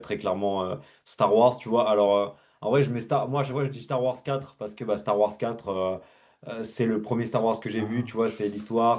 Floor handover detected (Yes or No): No